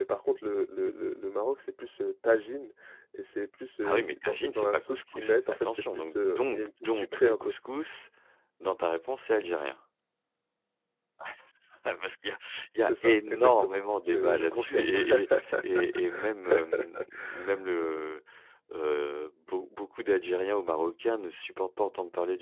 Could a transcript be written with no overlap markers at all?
No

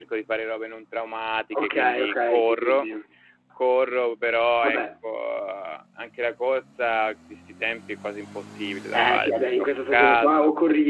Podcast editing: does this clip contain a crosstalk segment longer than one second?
Yes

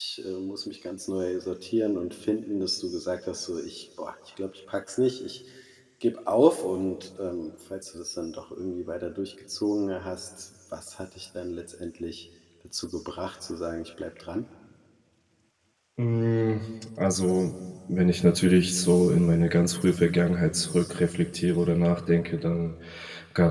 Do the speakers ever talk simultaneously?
No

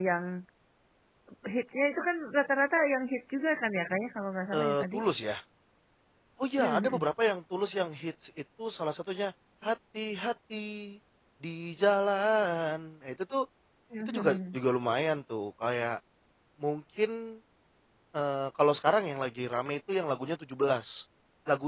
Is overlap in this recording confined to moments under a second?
Yes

